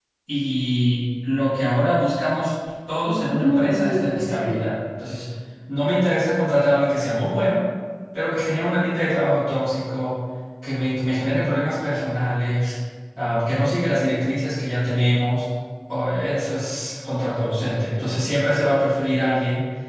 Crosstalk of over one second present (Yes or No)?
Yes